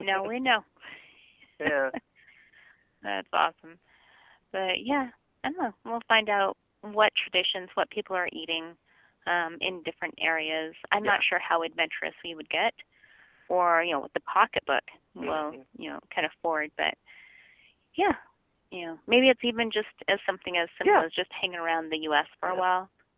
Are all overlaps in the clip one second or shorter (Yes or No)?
Yes